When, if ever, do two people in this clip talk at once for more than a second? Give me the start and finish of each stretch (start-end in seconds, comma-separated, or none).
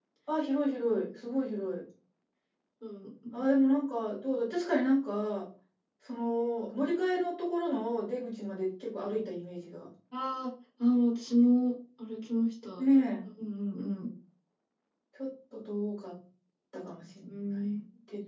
none